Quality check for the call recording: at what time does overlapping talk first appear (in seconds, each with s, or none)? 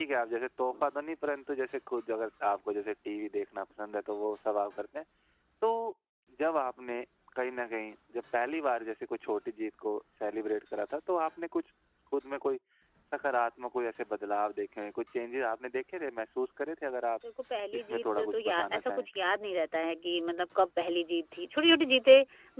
17.7 s